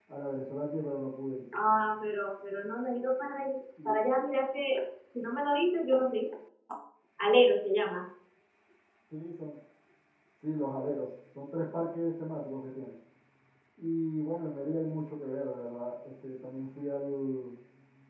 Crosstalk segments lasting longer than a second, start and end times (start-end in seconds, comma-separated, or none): none